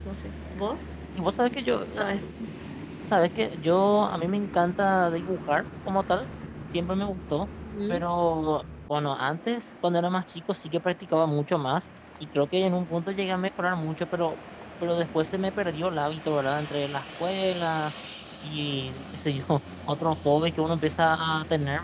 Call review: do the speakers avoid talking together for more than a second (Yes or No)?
Yes